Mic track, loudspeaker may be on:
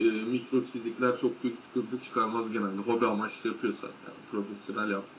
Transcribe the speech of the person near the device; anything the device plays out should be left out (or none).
none